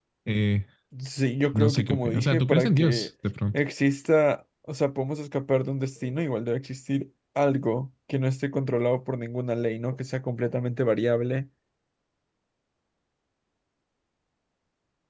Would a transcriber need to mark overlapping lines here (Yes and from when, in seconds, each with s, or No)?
Yes, from 1.5 s